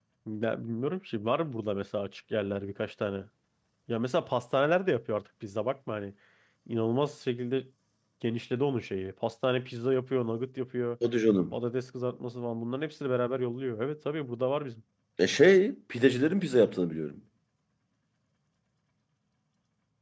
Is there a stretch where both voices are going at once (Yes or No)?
No